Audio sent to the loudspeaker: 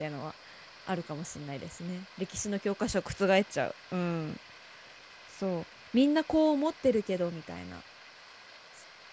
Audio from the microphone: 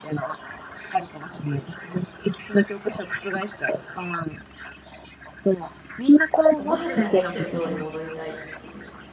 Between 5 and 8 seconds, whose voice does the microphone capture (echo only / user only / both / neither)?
both